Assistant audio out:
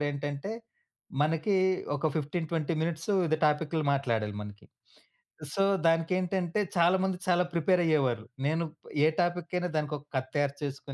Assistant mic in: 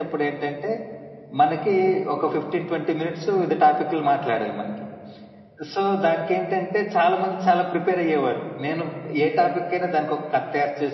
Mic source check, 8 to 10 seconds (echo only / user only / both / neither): echo only